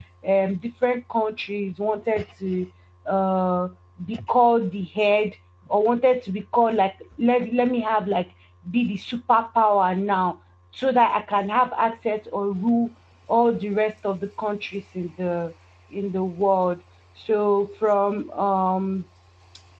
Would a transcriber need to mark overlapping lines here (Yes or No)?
No